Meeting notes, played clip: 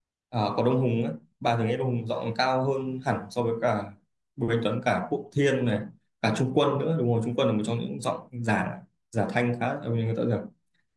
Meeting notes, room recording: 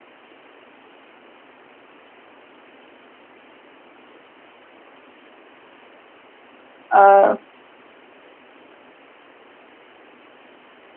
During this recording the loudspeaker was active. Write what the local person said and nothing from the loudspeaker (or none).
Ờ,